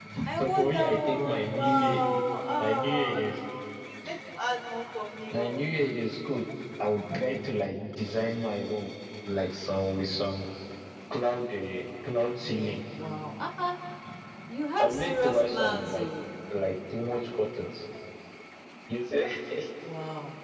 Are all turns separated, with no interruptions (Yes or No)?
No